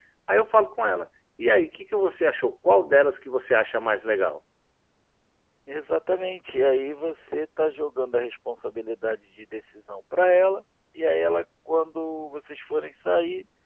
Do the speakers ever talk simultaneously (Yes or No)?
No